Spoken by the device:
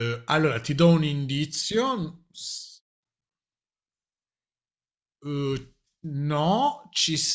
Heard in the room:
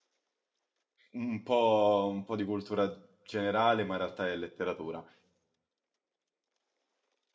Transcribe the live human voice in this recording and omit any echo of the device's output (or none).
un po', un po' di cultura generale, ma in realtà è letteratura.